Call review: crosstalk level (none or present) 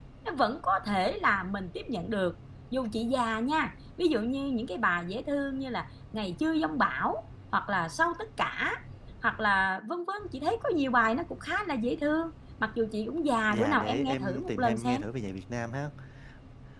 present